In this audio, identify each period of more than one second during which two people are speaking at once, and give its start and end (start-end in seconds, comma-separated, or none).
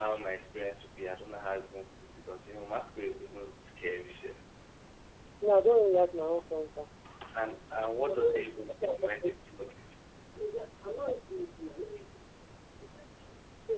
7.3-9.4